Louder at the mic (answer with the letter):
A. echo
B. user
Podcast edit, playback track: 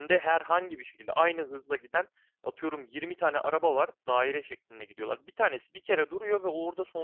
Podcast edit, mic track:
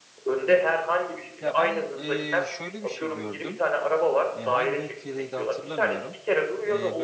A